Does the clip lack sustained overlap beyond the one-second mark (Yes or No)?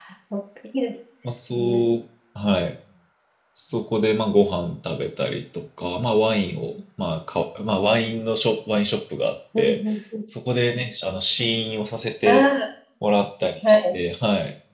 Yes